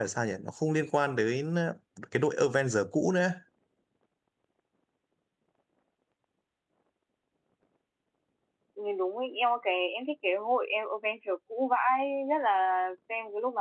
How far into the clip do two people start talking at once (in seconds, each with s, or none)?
none